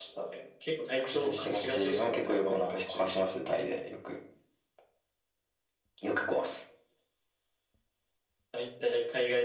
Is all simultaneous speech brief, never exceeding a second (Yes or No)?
No